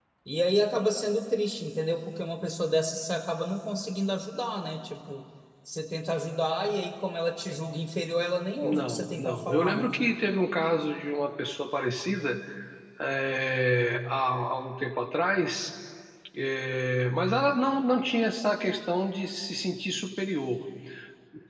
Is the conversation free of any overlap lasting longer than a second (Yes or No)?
No